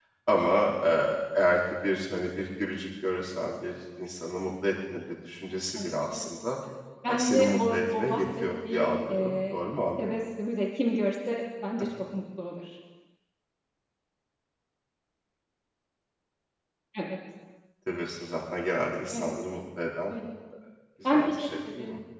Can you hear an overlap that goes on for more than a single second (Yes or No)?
Yes